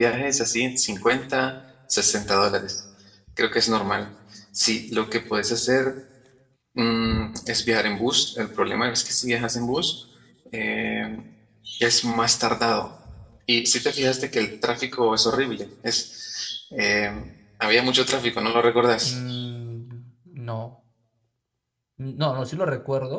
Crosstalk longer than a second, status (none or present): none